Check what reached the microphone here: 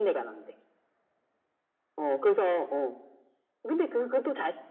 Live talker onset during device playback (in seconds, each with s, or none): none